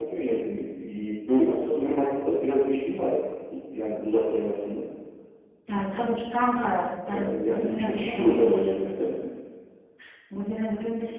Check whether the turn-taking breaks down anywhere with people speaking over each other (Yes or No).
Yes